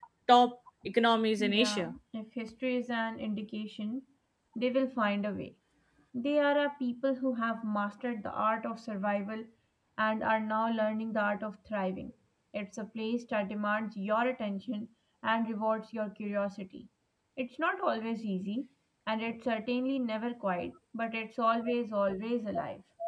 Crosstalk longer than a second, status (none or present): none